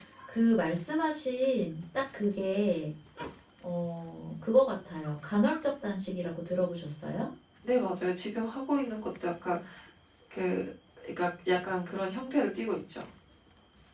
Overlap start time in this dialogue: none

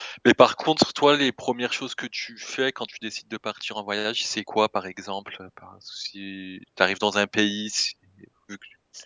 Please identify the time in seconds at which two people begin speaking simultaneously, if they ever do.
none

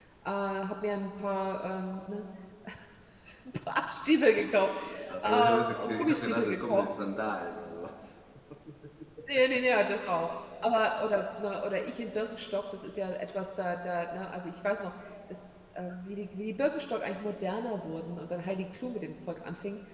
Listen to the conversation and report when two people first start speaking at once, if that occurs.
5 s

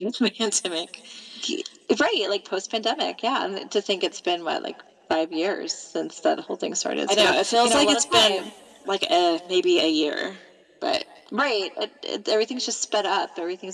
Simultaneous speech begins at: 7 s

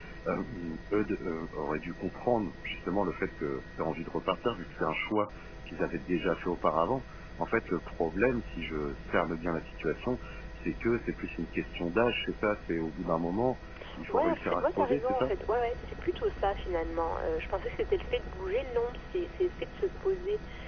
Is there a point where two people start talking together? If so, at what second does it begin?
14 s

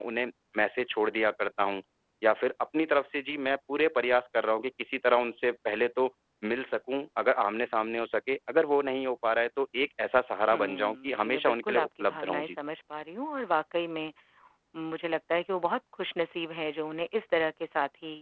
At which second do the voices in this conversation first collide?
11 s

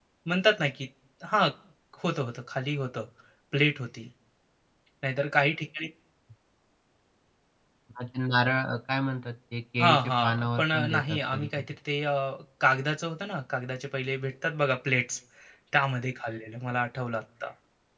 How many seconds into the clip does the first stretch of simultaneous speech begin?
10 s

